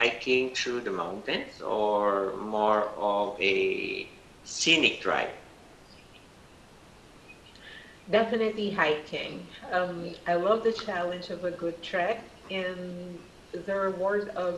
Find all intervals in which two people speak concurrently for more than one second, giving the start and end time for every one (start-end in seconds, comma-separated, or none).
none